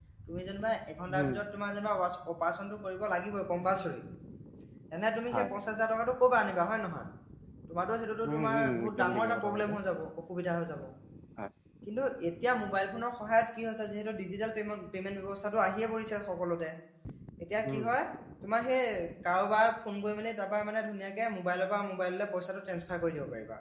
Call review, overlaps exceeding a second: present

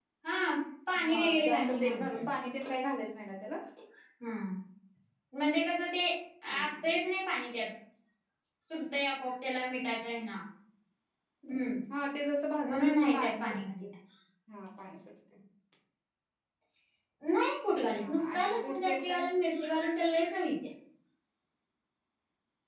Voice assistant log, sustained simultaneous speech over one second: present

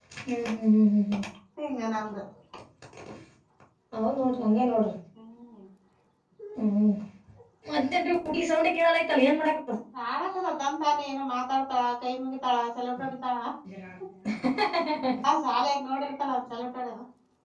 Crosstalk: none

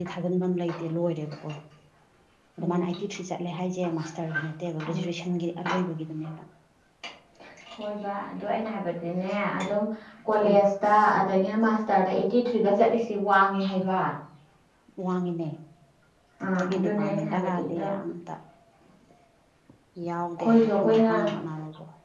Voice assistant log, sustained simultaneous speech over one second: present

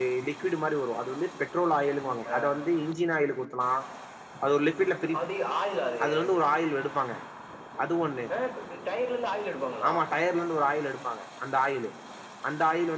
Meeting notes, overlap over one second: none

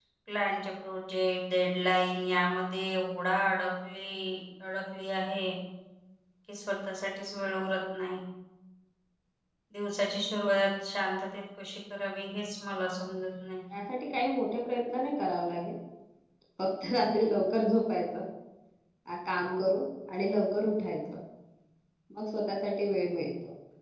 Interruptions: none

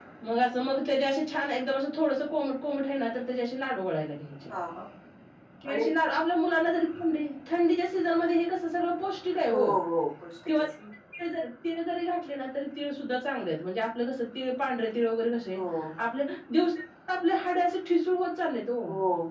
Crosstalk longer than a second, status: none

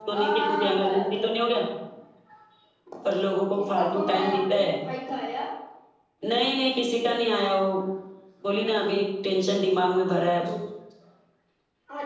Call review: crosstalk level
present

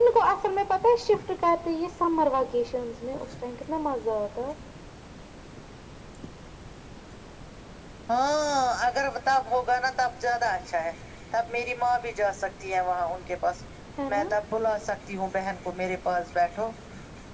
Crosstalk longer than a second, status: none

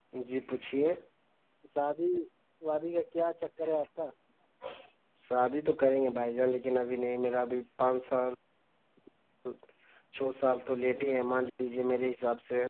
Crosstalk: none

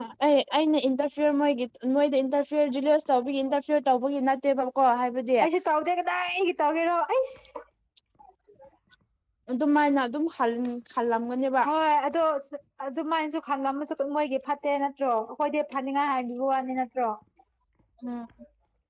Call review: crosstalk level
none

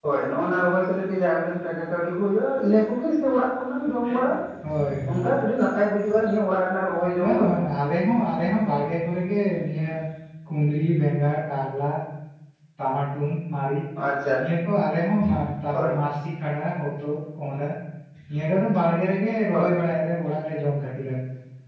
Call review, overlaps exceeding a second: none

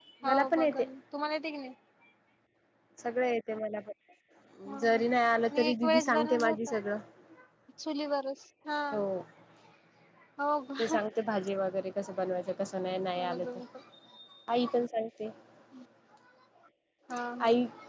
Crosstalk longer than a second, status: present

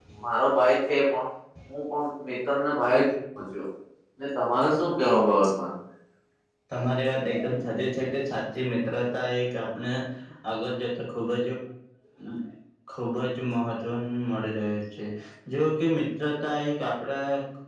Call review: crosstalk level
none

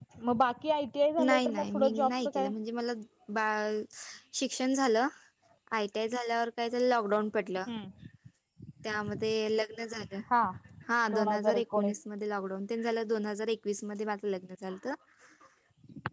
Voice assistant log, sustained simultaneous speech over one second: present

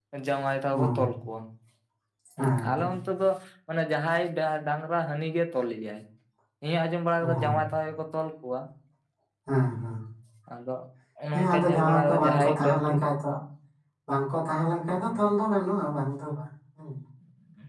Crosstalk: present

